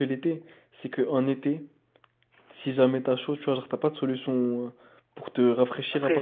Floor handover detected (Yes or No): Yes